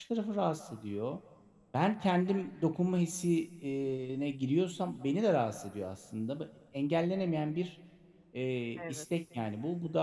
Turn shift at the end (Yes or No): No